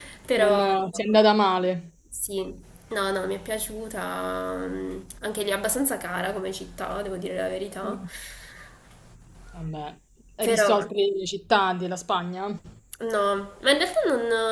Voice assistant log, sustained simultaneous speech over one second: none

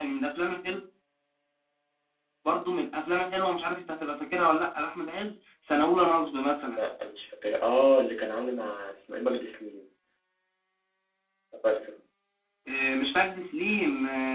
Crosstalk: none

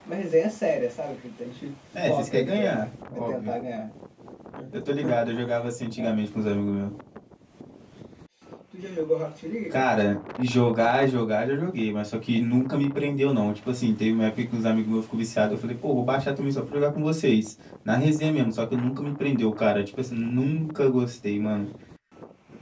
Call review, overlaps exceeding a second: present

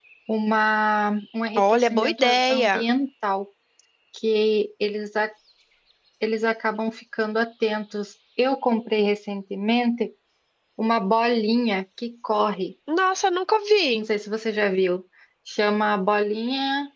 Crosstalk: present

